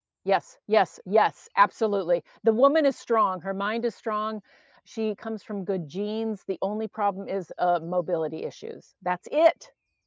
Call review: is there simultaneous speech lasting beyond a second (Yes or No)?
No